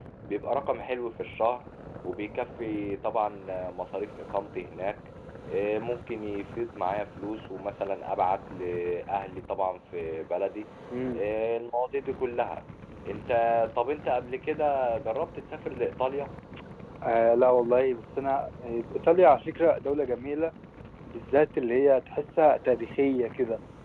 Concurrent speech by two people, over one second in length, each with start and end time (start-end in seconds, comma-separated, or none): none